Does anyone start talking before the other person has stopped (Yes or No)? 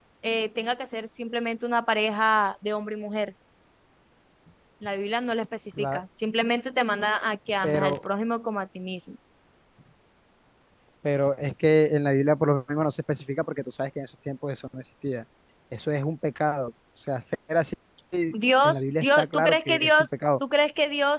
Yes